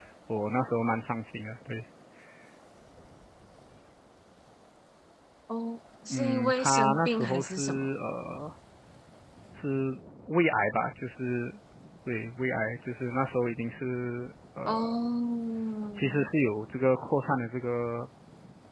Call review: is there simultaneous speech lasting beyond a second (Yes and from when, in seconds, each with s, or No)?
Yes, from 6.1 s